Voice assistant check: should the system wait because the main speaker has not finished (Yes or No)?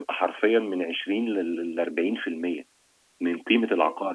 Yes